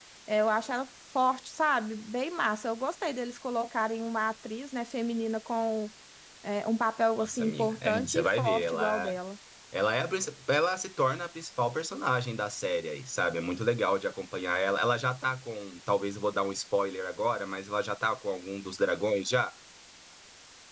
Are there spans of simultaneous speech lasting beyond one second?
Yes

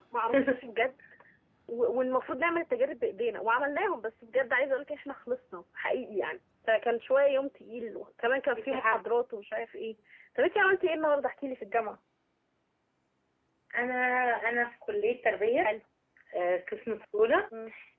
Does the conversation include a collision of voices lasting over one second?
No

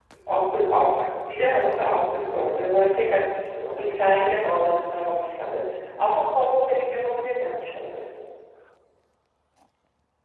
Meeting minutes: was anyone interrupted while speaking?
No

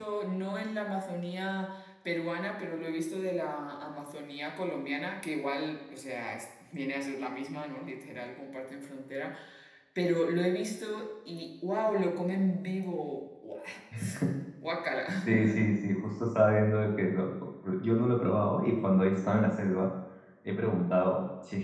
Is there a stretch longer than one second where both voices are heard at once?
No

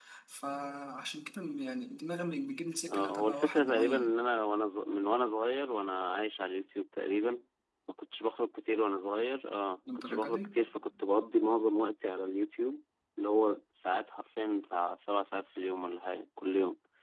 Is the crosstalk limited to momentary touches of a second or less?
No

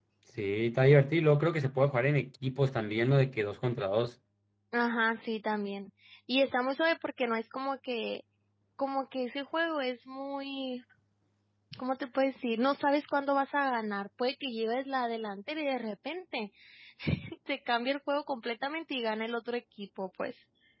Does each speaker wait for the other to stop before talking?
Yes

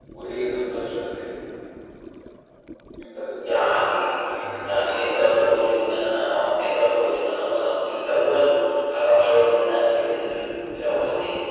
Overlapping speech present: Yes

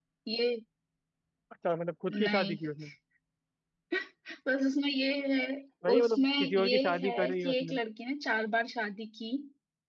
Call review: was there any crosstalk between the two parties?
Yes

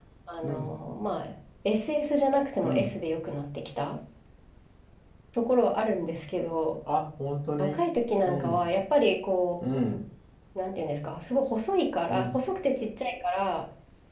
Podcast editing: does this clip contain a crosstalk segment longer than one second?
No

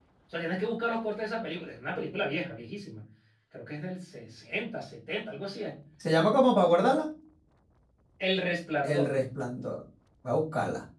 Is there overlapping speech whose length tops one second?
No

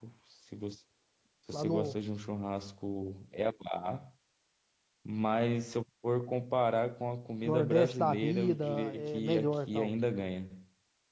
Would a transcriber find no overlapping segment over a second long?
No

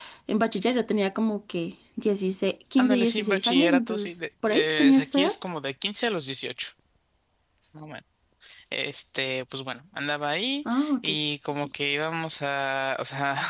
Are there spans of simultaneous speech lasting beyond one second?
Yes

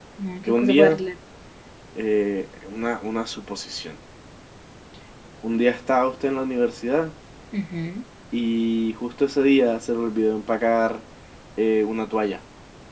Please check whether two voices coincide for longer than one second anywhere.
No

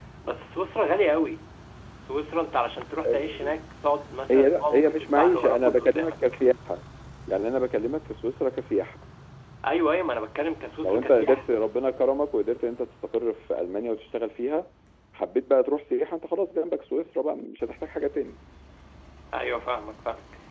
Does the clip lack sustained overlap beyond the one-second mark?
No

